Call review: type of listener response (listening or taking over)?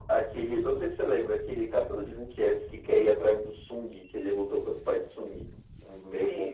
taking over